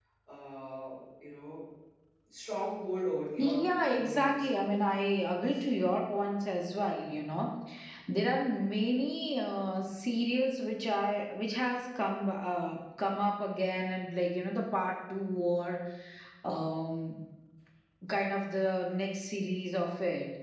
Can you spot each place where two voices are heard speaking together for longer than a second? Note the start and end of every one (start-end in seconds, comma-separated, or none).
3.4-4.6